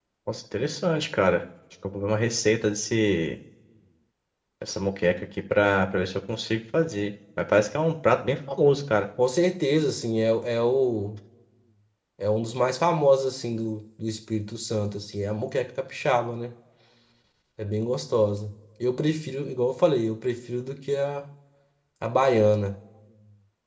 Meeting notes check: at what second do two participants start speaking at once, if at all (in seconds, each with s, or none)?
none